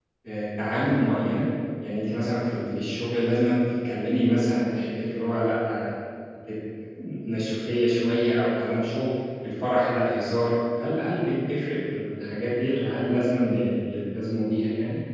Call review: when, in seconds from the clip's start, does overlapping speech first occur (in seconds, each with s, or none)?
none